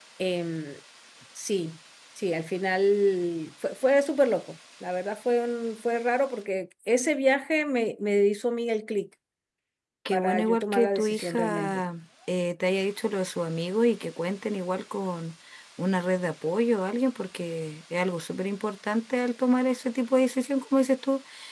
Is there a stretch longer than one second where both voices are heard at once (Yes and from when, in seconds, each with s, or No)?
Yes, from 10.1 s